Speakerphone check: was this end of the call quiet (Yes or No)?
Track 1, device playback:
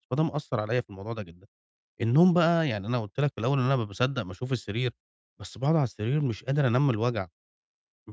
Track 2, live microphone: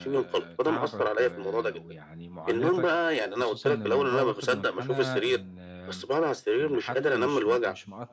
No